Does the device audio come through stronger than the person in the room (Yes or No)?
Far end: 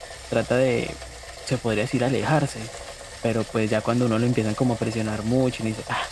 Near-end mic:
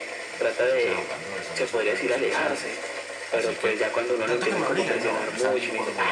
Yes